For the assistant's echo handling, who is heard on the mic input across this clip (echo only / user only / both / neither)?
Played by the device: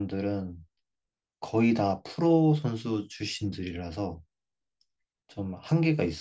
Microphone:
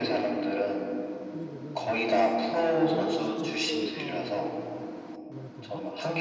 both